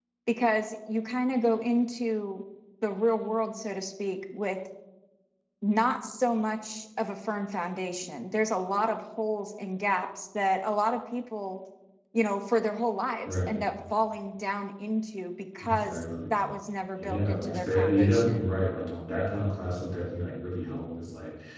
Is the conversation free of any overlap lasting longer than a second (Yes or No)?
No